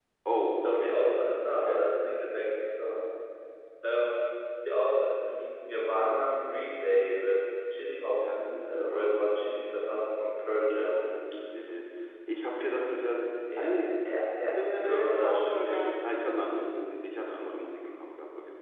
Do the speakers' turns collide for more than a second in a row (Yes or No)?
Yes